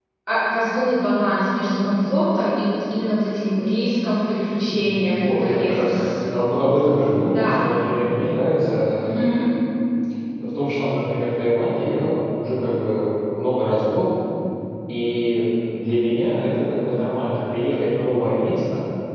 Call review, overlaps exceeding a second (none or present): present